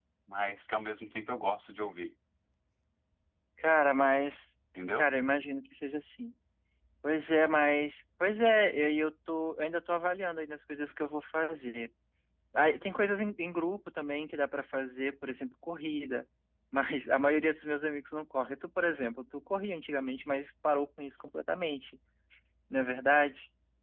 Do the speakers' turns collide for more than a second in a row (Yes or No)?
No